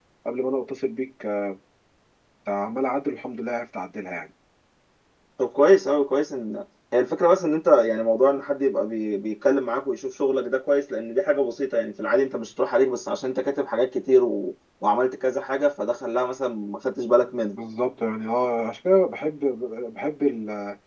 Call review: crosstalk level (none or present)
none